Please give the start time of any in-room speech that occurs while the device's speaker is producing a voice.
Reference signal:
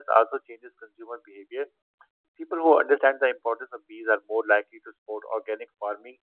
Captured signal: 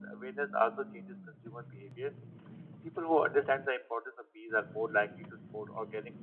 none

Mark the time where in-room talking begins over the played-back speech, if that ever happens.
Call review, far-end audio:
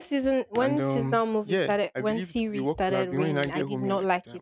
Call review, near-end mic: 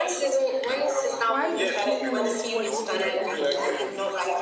1.2 s

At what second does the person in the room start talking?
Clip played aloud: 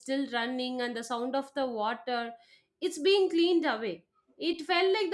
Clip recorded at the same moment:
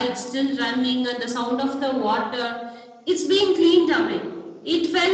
none

